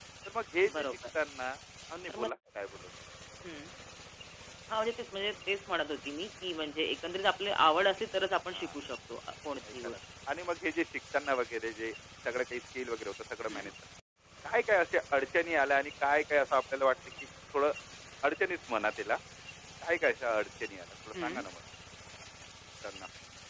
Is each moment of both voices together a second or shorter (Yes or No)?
Yes